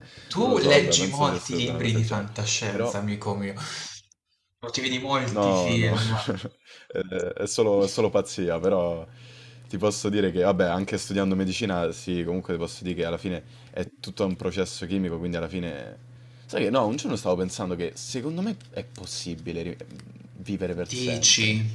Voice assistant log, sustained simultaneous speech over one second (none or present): present